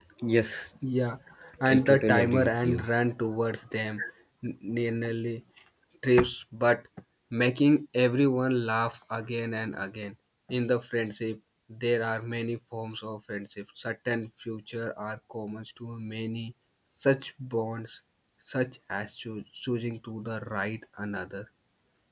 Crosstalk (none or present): present